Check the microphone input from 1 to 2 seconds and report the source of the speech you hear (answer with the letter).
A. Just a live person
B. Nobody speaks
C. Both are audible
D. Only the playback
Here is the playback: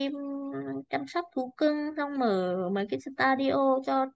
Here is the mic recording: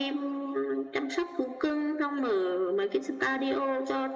D